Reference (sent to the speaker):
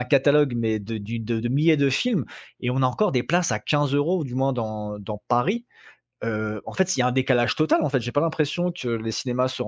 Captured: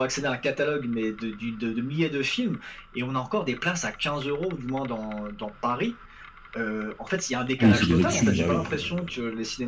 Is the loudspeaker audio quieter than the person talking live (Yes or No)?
Yes